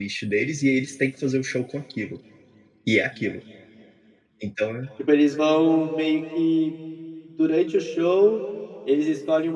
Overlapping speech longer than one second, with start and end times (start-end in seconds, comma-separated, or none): none